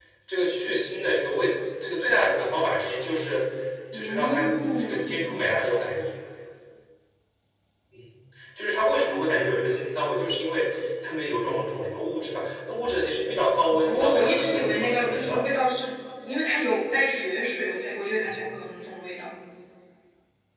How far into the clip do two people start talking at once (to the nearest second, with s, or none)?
4 s